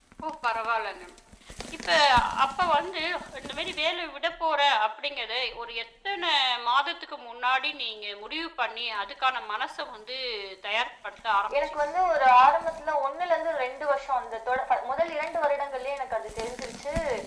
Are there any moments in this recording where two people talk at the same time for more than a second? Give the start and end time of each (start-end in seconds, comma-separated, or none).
none